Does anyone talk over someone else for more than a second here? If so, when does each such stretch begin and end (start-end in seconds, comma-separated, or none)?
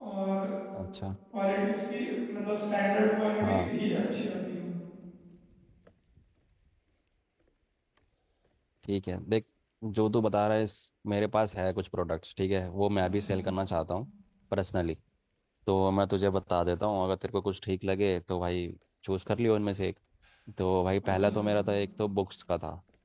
none